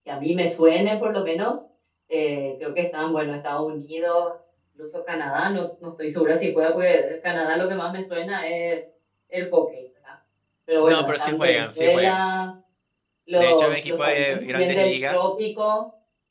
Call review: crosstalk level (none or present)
present